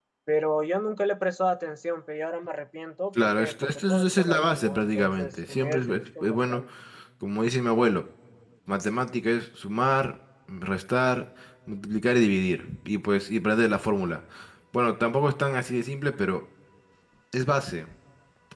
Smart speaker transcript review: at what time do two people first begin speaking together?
3.2 s

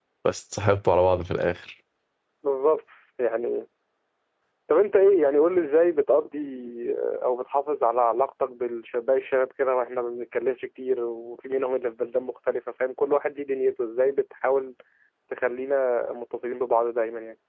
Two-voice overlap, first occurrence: none

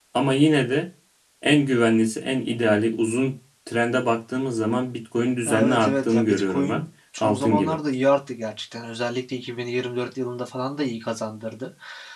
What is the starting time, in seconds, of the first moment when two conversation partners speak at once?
5.4 s

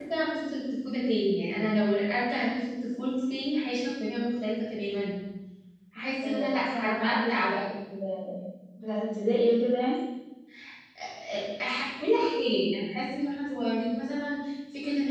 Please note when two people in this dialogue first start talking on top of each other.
6.2 s

